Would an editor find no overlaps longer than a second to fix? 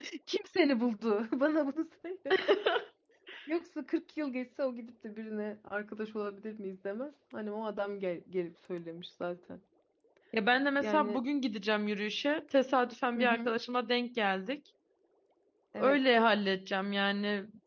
Yes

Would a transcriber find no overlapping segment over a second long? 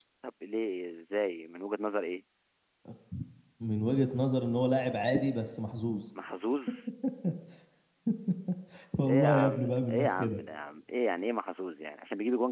No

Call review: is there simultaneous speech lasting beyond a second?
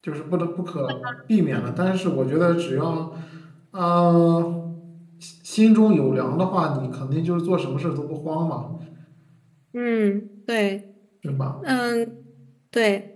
No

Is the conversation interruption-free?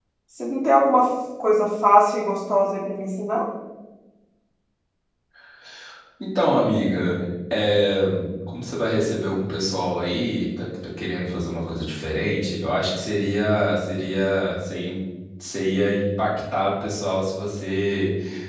Yes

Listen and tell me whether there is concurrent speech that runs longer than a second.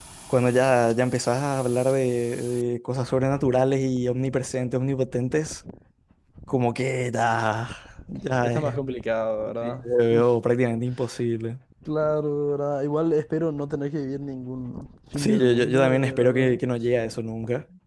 Yes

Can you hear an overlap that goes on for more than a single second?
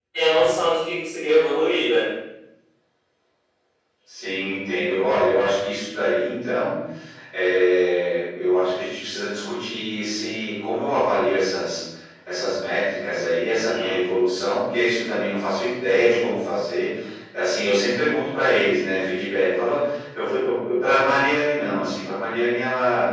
No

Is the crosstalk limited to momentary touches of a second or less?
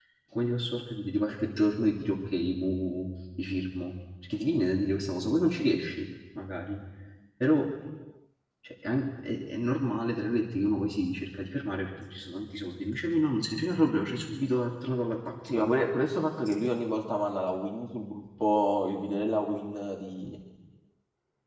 Yes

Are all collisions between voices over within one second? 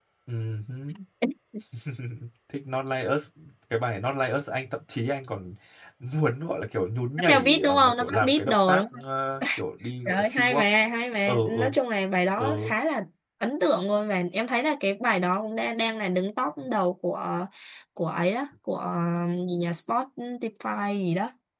No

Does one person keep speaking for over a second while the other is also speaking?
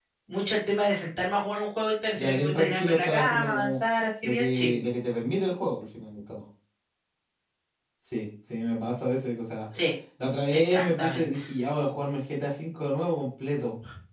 Yes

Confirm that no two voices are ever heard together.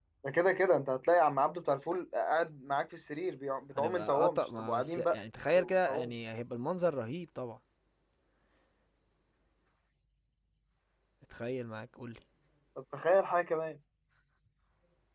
No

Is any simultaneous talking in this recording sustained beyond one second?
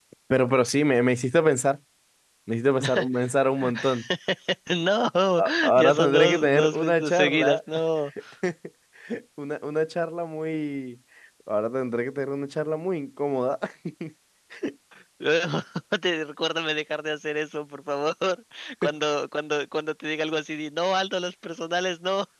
Yes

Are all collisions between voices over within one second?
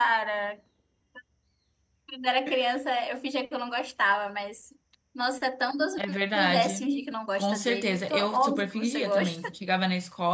No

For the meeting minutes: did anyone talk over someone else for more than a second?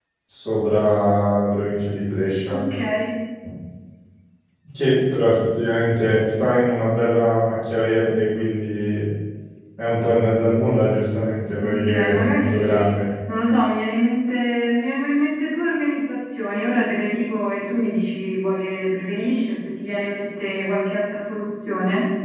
Yes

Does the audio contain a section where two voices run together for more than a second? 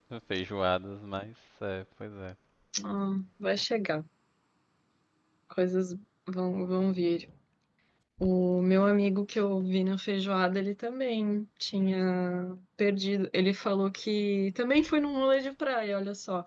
No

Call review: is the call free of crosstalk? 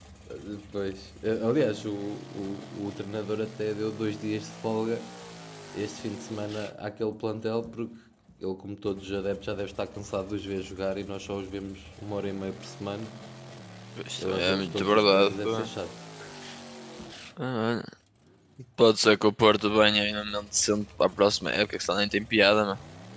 No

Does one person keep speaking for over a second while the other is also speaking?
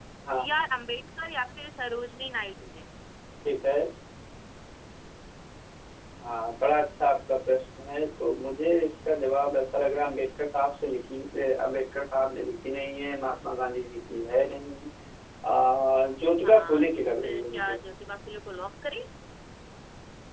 Yes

